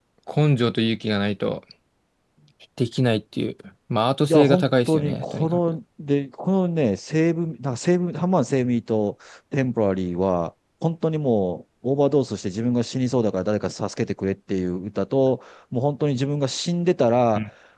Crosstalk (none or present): present